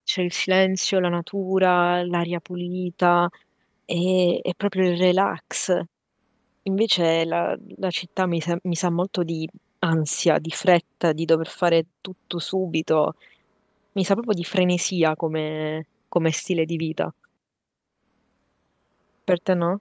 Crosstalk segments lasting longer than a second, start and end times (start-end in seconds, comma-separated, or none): none